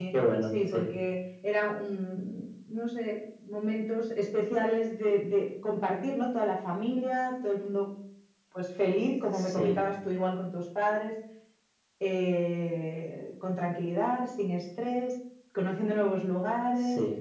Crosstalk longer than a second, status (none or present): none